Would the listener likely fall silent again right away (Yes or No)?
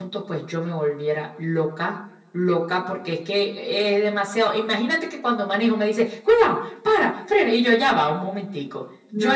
Yes